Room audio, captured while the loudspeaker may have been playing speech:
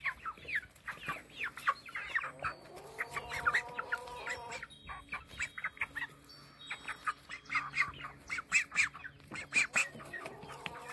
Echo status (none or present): none